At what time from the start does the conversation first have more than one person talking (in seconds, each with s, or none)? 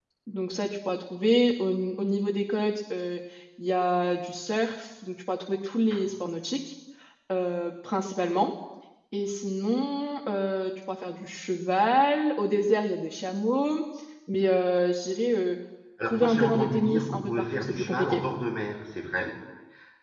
16.0 s